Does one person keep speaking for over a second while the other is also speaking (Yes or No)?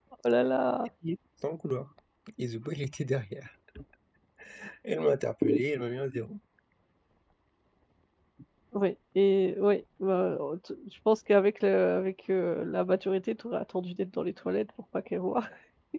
No